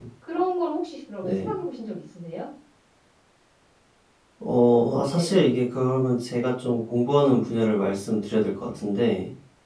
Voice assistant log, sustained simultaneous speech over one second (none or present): none